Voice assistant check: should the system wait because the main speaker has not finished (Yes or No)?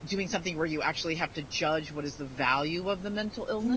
No